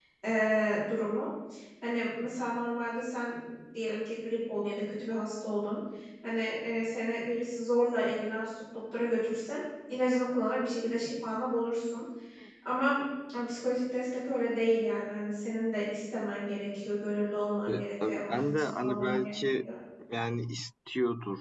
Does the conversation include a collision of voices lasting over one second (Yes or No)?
Yes